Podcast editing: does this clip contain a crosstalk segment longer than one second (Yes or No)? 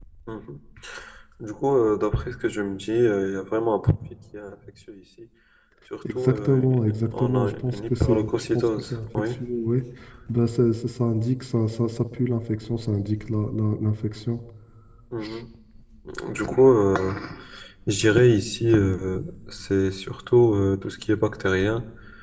Yes